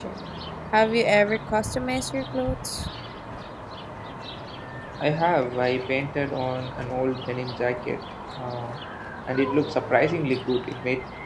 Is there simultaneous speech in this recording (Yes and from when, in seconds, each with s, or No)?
No